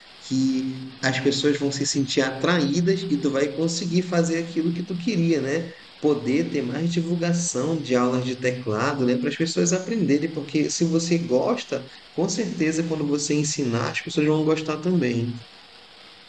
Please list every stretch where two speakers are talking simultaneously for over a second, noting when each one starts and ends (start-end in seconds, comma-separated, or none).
none